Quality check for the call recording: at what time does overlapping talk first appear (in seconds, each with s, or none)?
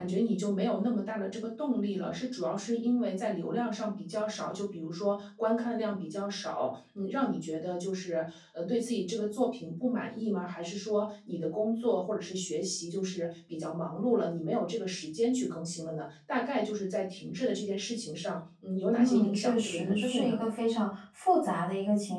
18.9 s